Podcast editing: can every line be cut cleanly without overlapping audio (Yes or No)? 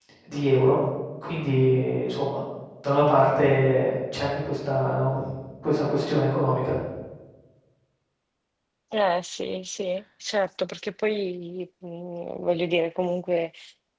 Yes